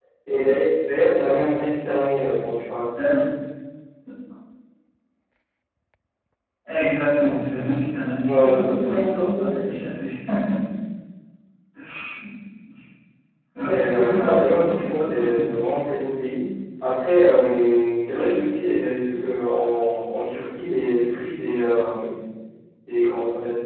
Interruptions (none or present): present